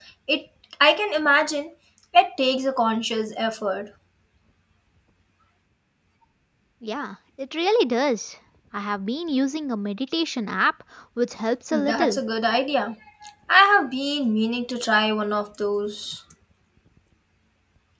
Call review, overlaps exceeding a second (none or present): none